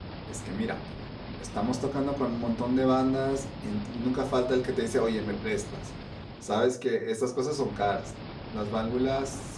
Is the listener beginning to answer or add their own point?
No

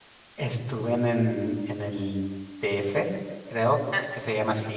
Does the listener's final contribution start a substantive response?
No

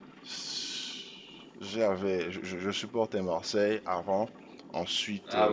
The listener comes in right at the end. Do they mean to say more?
Yes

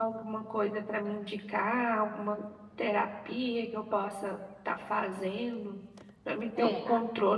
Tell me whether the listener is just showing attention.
Yes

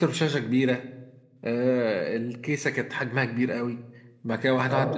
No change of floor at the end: Yes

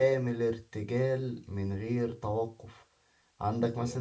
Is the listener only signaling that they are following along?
Yes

